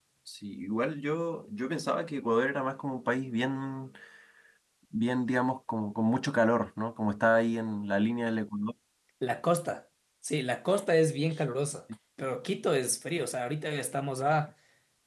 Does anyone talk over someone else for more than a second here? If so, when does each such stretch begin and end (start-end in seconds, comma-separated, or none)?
none